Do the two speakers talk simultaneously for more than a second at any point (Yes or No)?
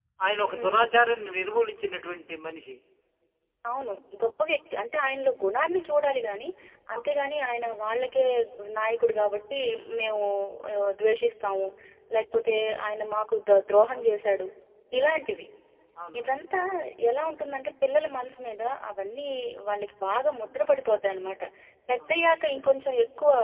No